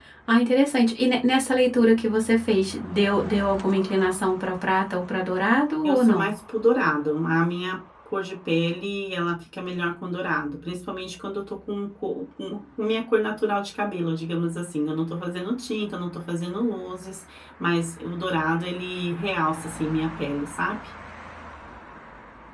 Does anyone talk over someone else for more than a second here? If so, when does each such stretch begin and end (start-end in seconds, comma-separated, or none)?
none